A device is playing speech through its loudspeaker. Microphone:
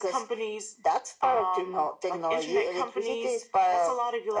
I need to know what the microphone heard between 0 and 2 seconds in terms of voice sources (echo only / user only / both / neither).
echo only